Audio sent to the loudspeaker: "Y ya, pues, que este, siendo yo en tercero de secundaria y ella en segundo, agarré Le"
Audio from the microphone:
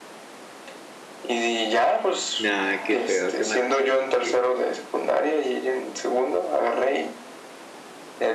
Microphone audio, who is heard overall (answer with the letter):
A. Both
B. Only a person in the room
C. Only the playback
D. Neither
A